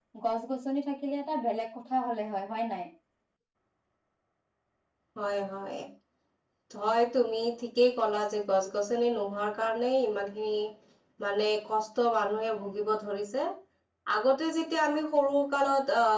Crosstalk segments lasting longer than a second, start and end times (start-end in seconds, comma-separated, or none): none